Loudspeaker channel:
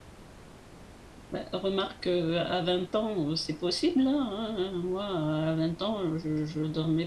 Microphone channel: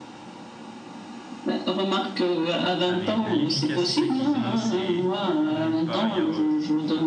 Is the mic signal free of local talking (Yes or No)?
No